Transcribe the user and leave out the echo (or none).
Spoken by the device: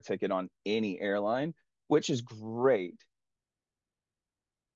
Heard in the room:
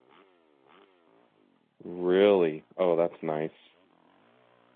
Really? Oh, that's nice.